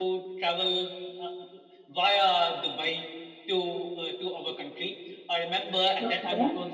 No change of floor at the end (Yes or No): Yes